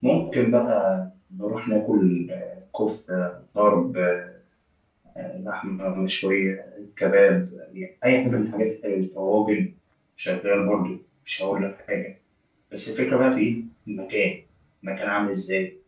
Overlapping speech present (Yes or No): No